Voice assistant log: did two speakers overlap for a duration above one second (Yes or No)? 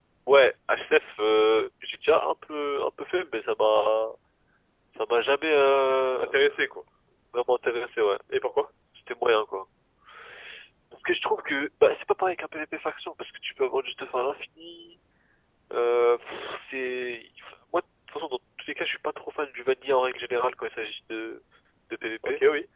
No